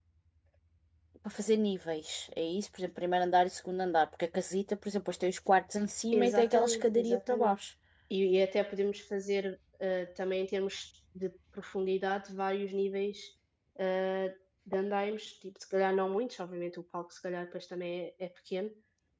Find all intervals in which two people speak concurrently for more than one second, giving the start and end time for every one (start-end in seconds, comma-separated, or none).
6.1-7.6